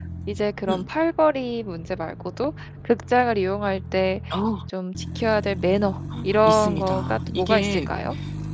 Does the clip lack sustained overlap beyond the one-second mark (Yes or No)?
No